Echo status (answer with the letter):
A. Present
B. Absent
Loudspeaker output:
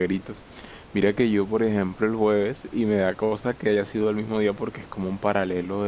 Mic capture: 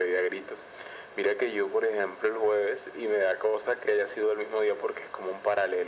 A